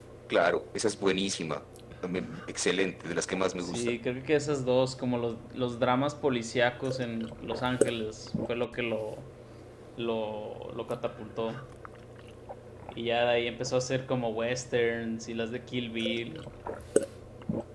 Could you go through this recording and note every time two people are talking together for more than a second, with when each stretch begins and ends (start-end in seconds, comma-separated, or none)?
none